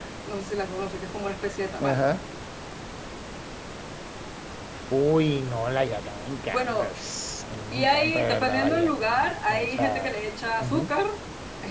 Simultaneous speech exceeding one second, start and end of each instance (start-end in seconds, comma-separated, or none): 7.7-10.1